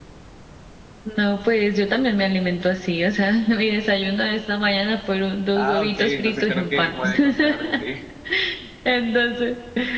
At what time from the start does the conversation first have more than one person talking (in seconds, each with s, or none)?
5.5 s